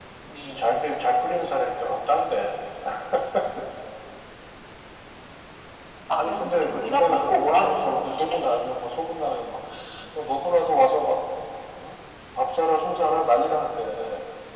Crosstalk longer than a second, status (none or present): present